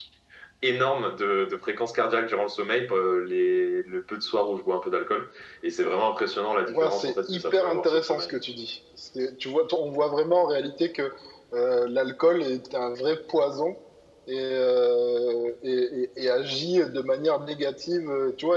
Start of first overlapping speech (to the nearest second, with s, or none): 7 s